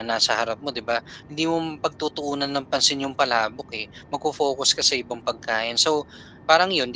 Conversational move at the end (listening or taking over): listening